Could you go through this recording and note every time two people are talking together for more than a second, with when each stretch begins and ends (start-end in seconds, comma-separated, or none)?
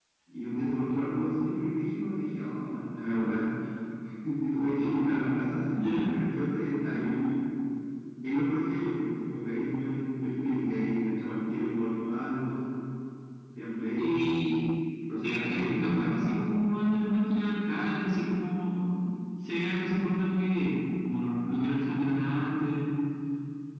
15.2-16.5